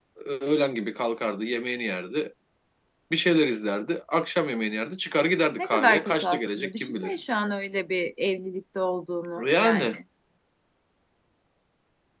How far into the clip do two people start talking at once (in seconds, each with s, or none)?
5.6 s